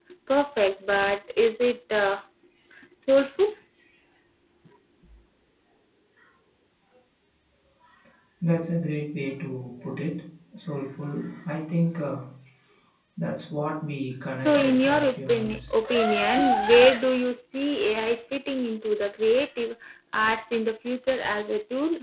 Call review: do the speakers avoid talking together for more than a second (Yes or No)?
No